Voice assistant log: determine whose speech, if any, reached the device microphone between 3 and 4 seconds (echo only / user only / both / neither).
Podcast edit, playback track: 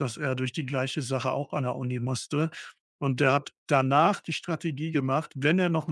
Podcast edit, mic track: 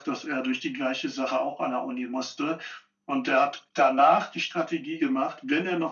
echo only